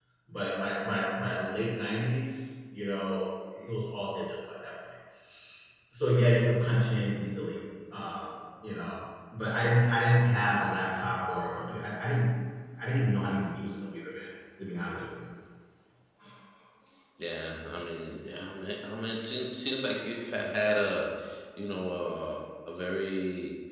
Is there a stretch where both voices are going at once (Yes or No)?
No